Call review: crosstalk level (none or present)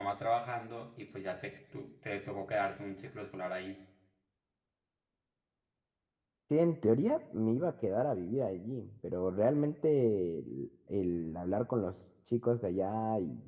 none